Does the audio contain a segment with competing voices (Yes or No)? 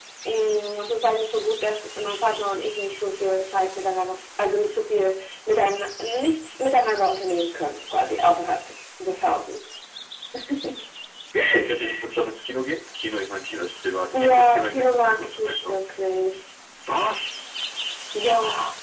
Yes